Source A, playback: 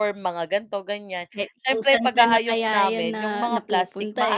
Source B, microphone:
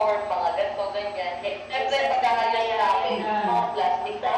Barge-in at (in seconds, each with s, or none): 3.1 s